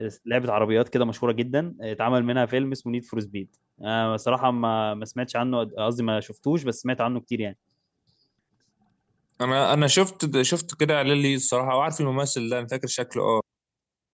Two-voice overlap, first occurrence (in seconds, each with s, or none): none